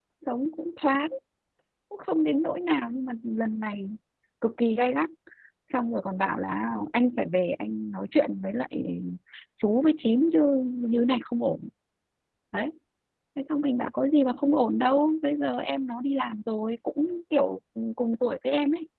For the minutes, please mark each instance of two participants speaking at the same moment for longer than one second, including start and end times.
none

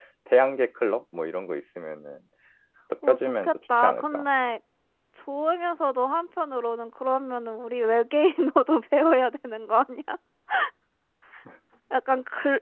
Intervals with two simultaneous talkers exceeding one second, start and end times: 3.0-4.3

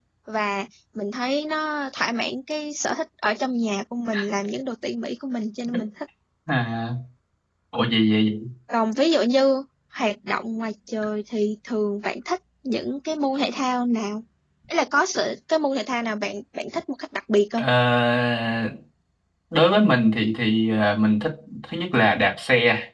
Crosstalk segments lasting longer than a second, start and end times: none

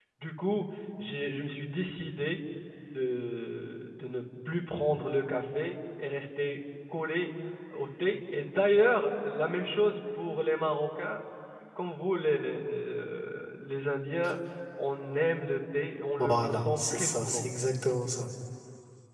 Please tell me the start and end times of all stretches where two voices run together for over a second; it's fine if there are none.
16.2-17.4

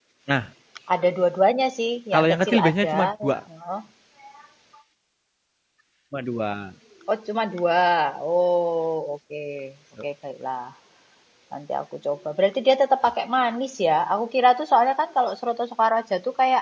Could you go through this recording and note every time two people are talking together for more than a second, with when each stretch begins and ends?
2.1-3.4

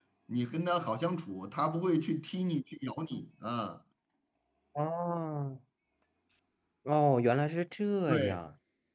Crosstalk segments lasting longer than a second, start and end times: none

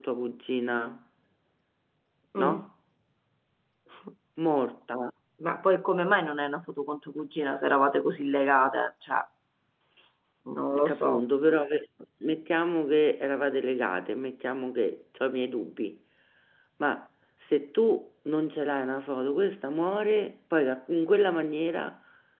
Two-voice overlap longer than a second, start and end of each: none

